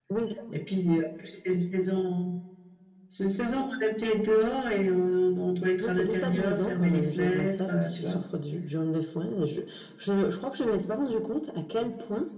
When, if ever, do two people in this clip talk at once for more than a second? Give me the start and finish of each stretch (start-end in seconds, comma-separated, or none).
5.8-8.2